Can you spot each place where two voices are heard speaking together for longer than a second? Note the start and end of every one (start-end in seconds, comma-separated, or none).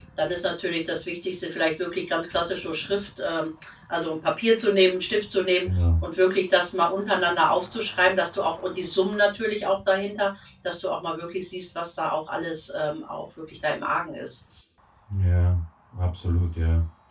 none